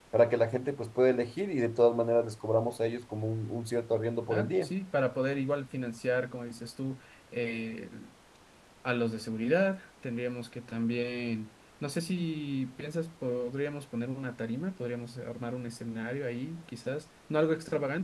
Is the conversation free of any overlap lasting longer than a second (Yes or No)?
Yes